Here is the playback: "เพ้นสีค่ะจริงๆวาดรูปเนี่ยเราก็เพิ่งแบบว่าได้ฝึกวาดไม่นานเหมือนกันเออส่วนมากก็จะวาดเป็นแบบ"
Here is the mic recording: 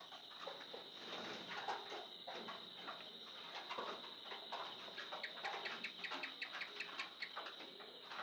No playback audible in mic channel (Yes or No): Yes